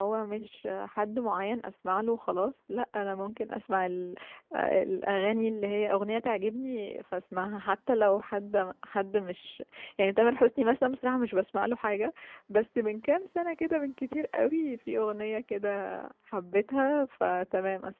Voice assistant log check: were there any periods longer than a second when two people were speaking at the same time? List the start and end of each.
none

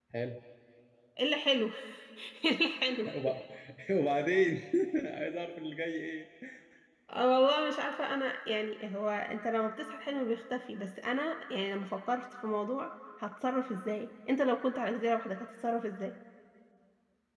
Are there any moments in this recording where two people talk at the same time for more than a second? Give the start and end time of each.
none

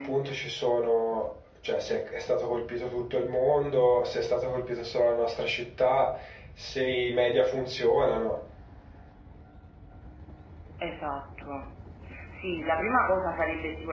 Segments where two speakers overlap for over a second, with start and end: none

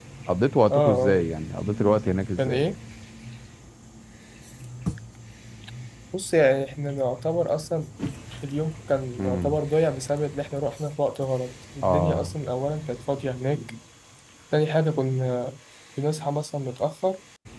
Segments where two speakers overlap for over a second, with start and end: none

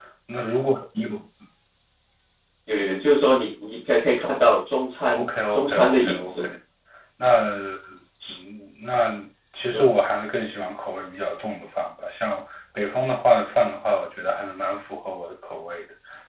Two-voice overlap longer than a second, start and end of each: 5.1-6.5

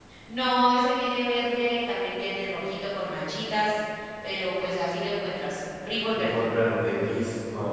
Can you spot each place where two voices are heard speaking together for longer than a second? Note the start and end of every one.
none

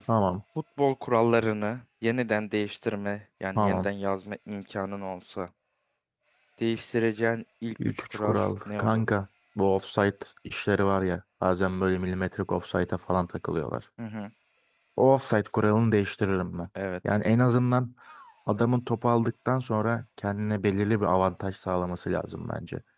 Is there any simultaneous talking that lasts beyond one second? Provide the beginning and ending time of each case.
7.9-9.1

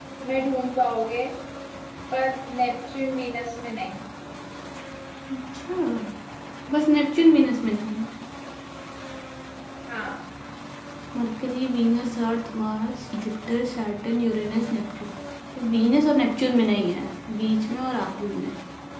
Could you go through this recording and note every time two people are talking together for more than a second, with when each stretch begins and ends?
none

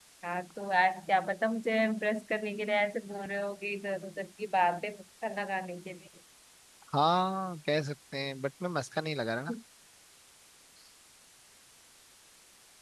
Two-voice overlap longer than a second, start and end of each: none

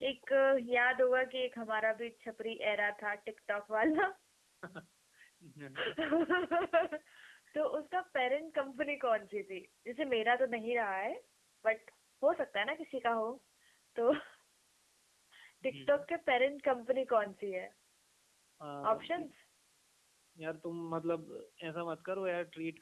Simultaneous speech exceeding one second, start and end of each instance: none

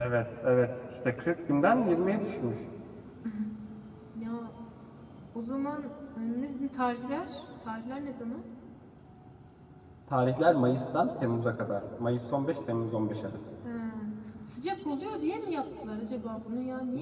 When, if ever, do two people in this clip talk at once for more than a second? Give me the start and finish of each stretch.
none

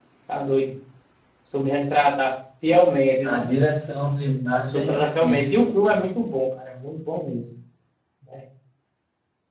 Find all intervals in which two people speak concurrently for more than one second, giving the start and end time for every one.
4.6-6.0

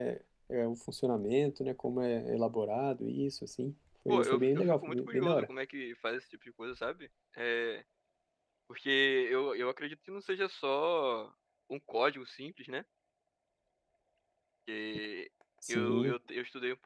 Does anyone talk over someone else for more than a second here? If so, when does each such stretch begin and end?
4.1-5.5

